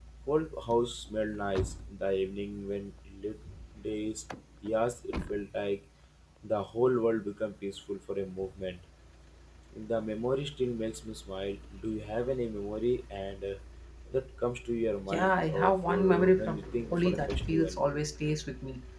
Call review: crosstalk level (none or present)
present